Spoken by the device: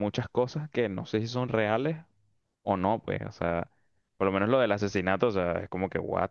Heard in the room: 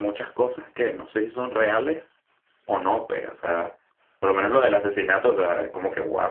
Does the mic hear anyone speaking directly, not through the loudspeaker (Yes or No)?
No